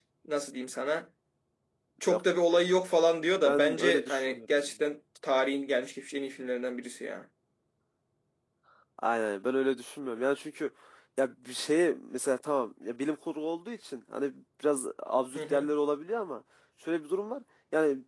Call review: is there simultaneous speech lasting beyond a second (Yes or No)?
Yes